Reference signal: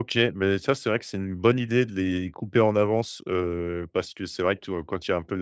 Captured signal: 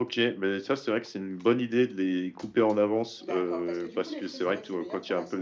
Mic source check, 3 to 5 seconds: both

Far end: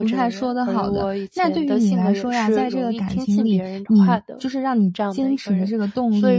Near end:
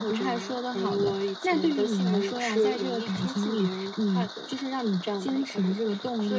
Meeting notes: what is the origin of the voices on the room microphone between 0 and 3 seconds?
echo only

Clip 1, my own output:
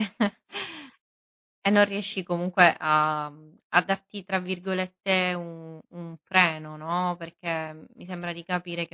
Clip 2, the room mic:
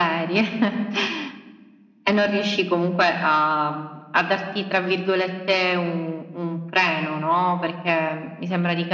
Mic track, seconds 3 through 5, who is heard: echo only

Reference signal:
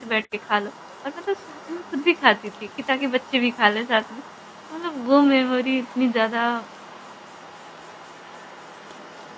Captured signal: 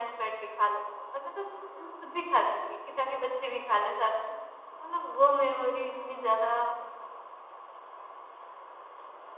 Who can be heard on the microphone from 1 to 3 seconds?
echo only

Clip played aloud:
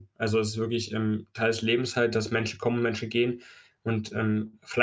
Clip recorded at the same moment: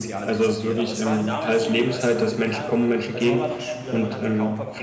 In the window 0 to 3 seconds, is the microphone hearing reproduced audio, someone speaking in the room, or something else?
both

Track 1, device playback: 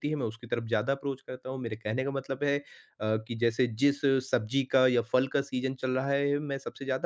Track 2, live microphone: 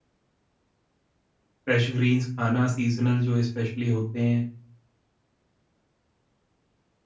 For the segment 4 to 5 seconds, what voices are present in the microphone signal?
user only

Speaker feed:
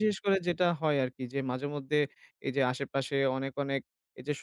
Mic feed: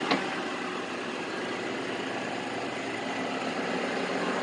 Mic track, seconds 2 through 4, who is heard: neither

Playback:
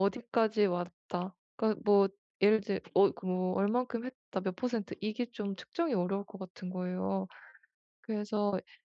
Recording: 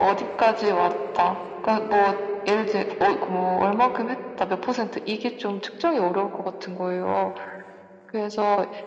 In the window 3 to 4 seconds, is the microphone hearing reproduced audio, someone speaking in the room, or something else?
echo only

